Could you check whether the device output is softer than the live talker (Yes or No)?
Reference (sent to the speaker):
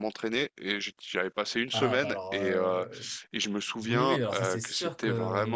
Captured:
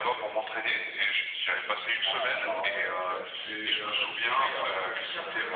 No